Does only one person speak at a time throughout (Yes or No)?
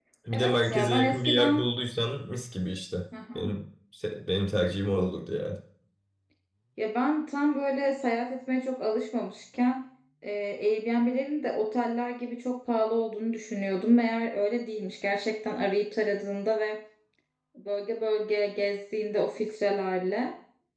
No